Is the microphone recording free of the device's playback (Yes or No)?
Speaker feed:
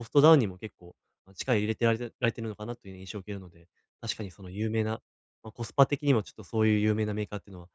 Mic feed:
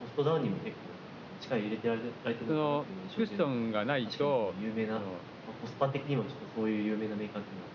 No